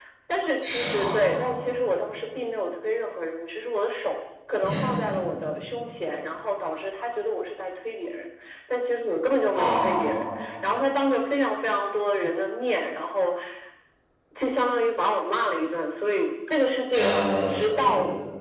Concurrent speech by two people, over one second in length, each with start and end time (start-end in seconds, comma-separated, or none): none